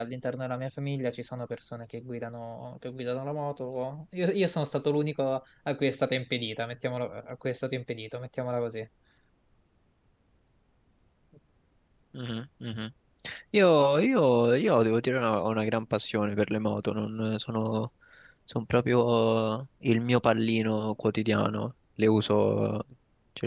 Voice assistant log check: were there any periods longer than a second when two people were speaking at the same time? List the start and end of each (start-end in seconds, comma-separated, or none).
none